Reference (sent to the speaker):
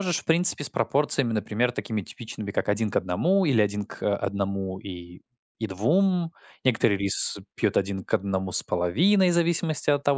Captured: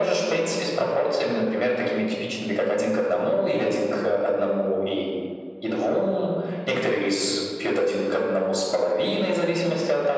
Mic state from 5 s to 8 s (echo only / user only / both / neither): echo only